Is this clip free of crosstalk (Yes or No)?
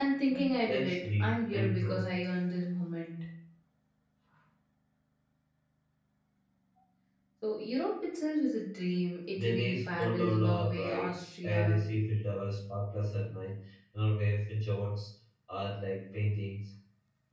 No